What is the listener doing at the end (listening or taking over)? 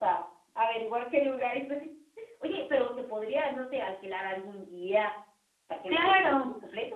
taking over